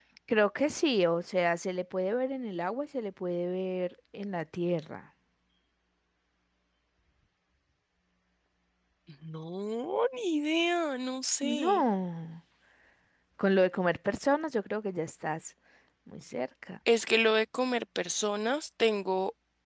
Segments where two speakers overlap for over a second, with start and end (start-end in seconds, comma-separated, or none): none